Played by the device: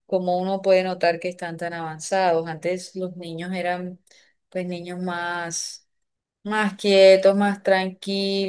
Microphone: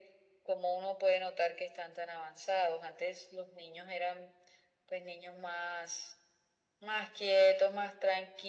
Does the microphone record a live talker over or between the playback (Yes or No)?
No